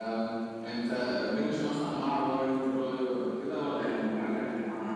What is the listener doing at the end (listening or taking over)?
taking over